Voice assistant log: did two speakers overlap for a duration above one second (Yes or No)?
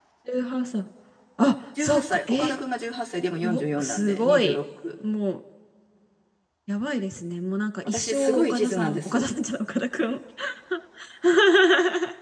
Yes